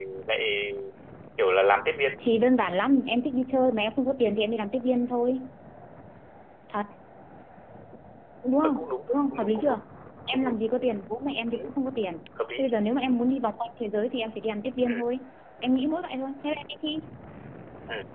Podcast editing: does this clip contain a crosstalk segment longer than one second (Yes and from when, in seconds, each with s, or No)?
Yes, from 8.6 s